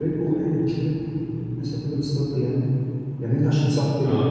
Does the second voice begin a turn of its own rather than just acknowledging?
No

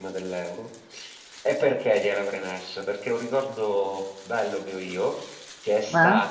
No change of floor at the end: Yes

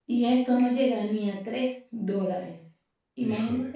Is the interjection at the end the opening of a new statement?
No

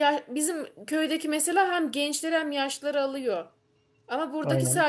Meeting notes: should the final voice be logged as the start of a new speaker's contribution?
No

